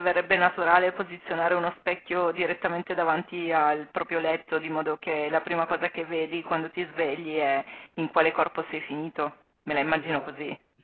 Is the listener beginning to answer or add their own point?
Yes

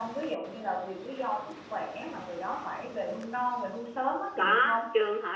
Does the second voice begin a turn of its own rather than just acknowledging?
Yes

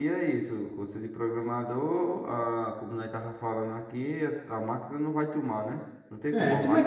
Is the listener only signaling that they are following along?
No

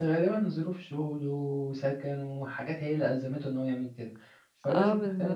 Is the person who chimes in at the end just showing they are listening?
No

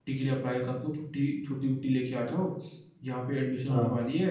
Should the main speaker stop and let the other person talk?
No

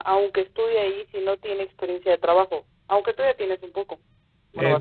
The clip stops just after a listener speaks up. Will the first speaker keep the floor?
No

